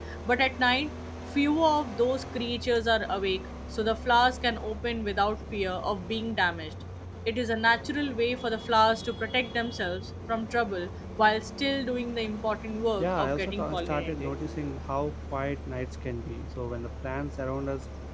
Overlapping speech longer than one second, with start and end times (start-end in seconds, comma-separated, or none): 13.0-14.3